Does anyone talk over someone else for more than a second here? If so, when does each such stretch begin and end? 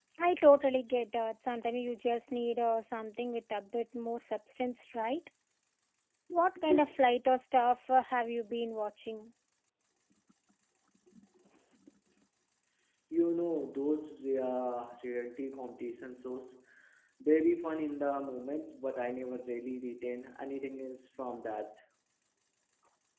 none

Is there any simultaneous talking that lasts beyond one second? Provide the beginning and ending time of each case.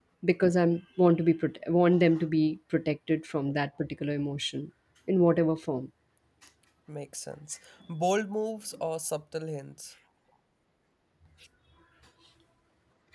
none

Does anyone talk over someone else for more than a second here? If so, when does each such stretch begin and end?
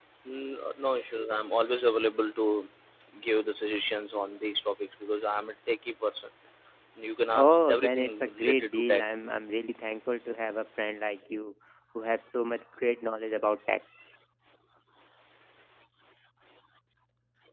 7.3-9.0

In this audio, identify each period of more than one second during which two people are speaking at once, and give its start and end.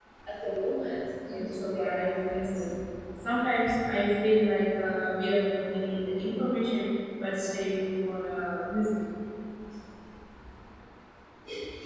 1.3-2.7

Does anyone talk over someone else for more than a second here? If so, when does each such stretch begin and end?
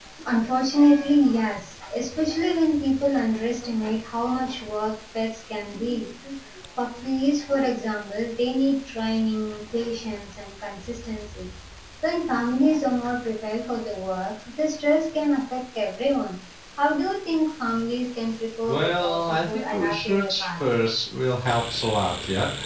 18.7-20.6

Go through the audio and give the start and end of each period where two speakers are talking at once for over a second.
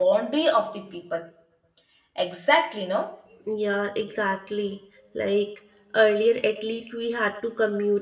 none

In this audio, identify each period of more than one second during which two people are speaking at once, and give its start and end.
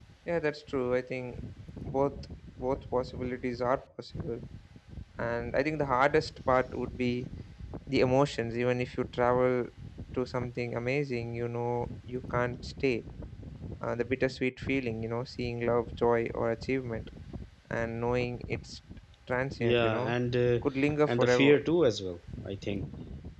none

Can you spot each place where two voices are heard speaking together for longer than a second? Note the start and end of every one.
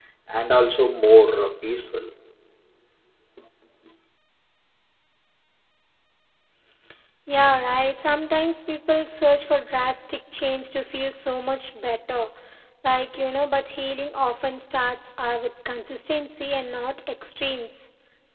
none

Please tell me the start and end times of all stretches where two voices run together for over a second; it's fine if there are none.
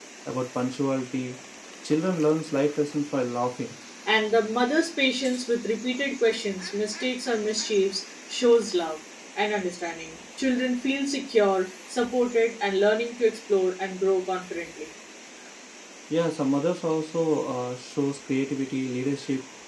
none

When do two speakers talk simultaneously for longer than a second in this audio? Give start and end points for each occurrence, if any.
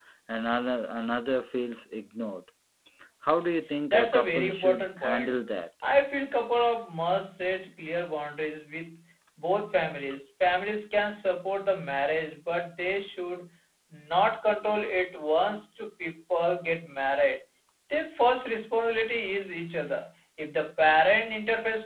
3.9-5.3

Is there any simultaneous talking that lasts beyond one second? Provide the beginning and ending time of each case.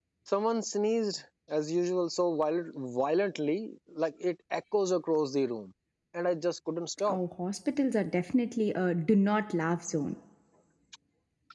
none

